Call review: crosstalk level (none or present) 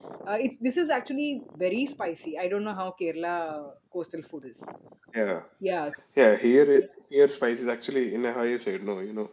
none